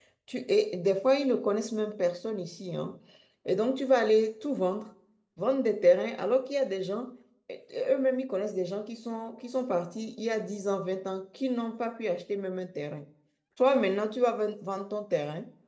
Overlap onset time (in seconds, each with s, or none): none